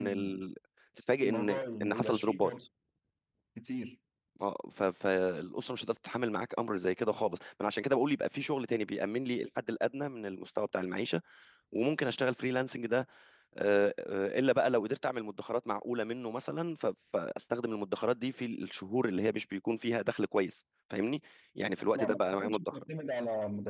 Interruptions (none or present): present